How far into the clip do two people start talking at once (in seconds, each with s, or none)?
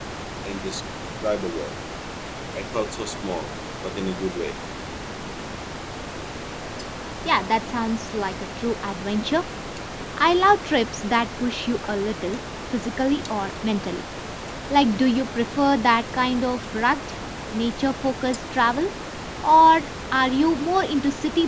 none